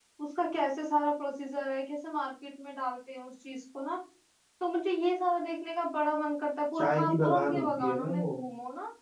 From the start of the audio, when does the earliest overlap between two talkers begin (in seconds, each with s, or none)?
6.8 s